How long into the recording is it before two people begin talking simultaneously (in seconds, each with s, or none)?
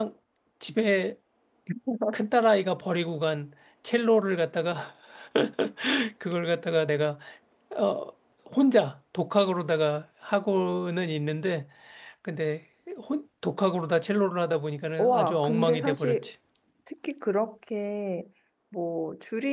15.0 s